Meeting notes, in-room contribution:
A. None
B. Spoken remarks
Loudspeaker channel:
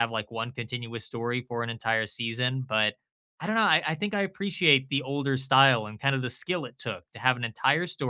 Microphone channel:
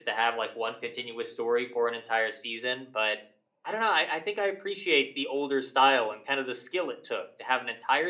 A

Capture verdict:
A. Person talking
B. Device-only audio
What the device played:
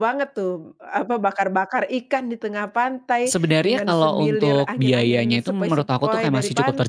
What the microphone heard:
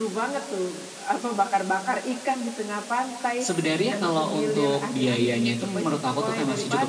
B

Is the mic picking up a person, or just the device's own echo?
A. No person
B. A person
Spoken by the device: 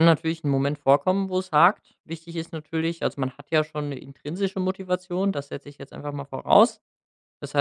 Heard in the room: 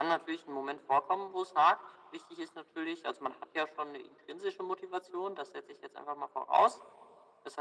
A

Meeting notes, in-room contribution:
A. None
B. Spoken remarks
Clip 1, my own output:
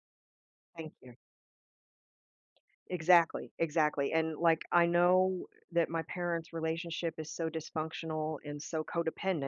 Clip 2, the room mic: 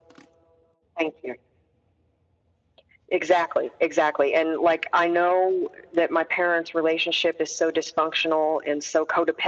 A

